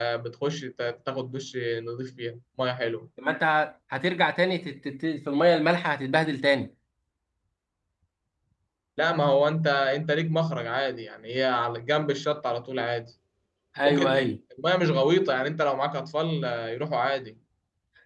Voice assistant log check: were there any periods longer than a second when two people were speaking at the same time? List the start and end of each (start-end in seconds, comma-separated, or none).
none